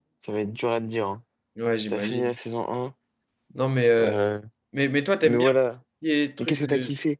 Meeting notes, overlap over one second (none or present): none